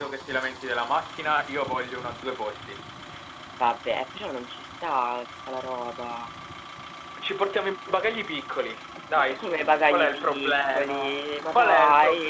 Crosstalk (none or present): present